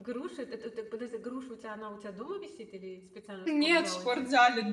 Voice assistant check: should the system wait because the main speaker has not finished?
No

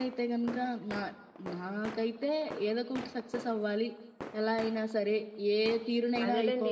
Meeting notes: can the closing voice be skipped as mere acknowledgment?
No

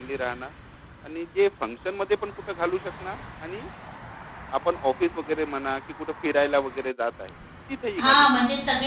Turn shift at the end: Yes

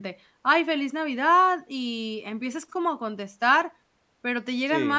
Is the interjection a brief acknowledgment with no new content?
Yes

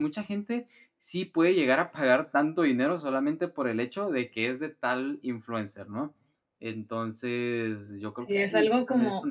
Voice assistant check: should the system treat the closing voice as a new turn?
Yes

